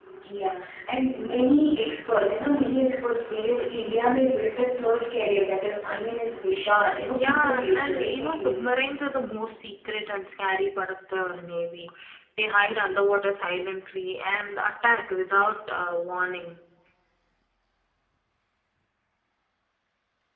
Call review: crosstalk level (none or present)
present